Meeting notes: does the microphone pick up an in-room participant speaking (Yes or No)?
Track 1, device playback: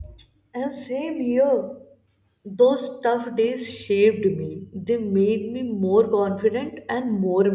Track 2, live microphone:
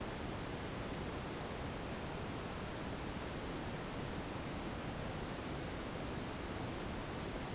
No